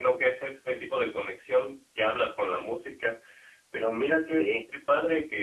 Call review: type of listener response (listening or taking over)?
listening